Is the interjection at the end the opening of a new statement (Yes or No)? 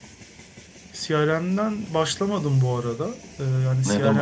No